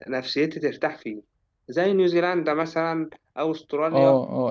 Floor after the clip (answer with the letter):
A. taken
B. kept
A